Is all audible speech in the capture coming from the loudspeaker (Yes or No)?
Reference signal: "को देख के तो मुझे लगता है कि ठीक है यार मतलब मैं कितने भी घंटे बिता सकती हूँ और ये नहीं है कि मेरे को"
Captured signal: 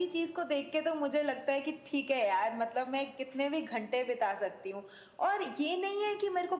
Yes